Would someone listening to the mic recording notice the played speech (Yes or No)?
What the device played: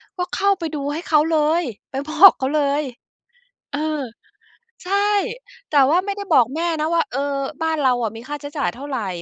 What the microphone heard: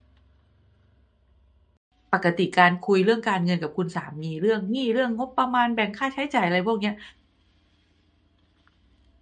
No